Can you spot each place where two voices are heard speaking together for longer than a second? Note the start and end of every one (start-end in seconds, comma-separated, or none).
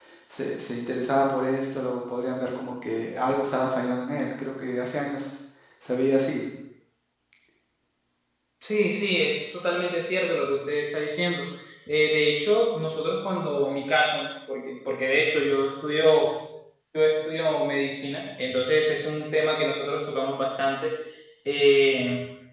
none